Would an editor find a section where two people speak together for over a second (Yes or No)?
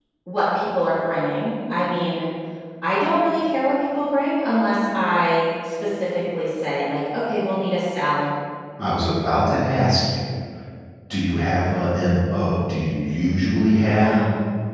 No